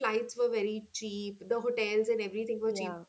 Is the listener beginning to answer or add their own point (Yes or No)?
No